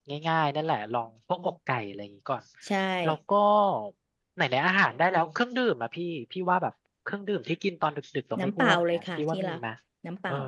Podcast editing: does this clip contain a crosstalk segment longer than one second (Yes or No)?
Yes